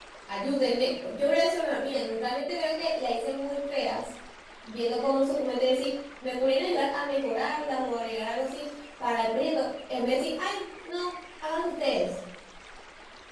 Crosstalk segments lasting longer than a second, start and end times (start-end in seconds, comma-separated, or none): none